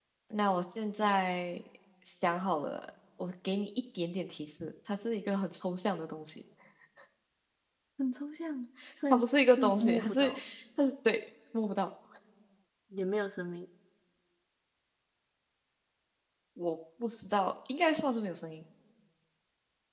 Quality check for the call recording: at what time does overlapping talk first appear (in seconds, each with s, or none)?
9.1 s